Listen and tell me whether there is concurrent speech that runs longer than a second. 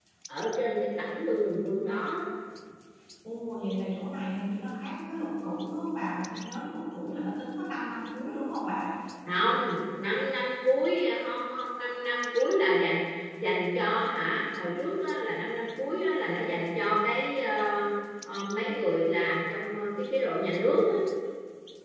No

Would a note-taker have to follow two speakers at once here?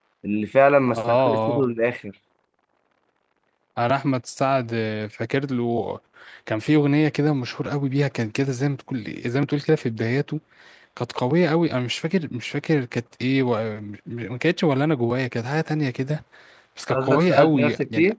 Yes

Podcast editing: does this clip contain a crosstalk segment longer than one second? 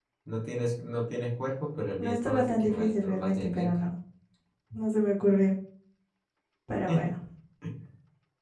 Yes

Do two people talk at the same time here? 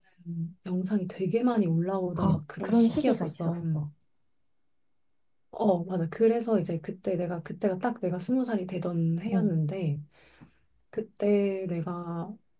Yes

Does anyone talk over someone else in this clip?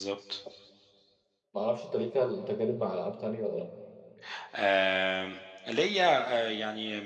No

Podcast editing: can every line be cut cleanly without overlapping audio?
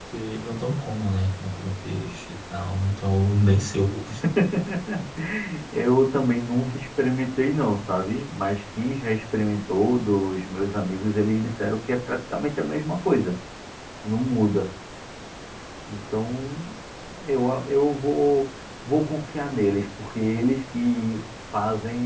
Yes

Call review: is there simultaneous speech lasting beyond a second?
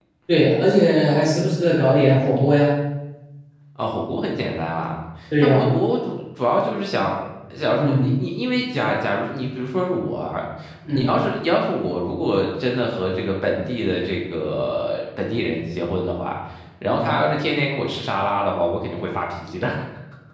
No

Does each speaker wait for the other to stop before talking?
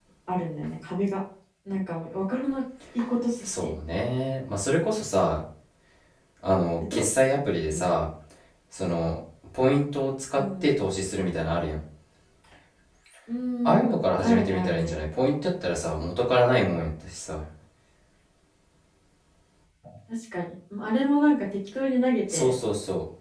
No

